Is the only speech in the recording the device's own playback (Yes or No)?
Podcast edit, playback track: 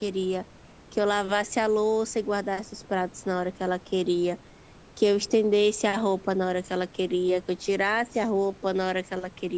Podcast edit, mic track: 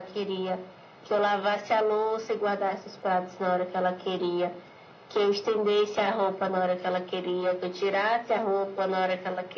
Yes